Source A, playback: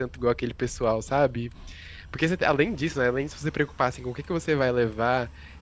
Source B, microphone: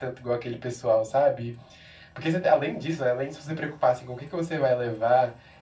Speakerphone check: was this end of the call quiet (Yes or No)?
Yes